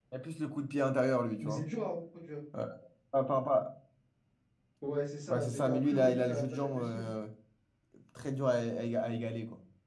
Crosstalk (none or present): present